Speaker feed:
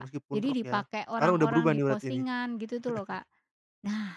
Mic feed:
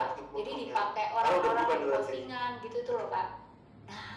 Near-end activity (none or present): none